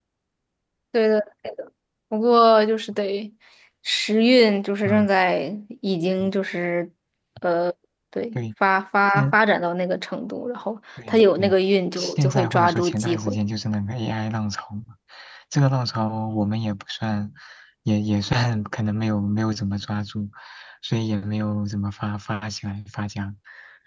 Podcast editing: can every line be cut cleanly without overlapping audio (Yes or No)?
No